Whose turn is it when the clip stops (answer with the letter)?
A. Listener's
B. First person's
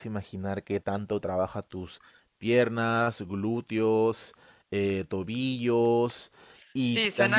A